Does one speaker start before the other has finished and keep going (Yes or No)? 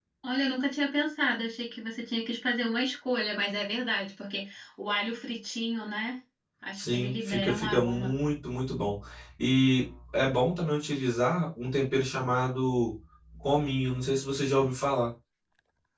Yes